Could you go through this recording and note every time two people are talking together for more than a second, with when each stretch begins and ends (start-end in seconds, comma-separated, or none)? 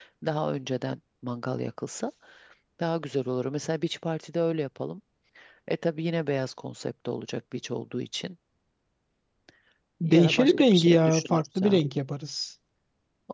10.0-11.8